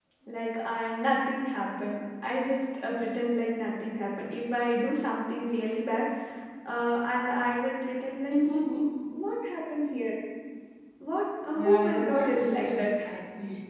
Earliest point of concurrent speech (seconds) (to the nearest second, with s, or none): 12 s